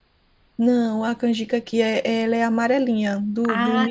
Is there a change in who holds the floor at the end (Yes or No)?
Yes